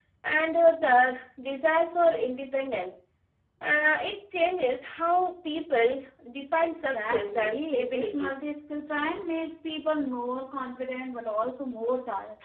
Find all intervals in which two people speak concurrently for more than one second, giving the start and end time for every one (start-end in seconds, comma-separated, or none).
6.6-8.3